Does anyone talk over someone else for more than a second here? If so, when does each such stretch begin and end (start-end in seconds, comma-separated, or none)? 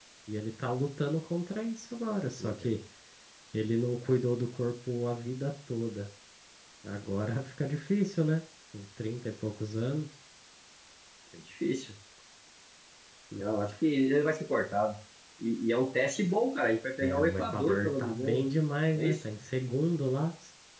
17.0-18.4